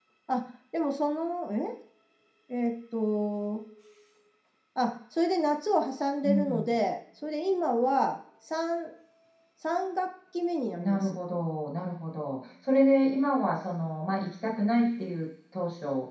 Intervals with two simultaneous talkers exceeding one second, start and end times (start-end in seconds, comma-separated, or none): none